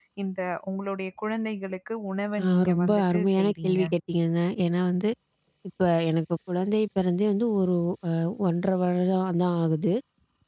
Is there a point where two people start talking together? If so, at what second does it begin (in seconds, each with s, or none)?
2.4 s